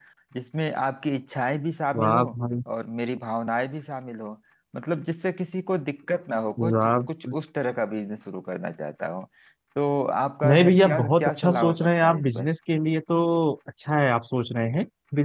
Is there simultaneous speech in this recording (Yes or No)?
Yes